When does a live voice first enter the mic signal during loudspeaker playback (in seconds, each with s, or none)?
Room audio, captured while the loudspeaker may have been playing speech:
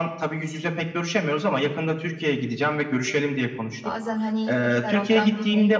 3.8 s